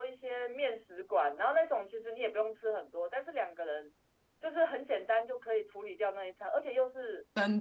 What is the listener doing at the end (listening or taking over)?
listening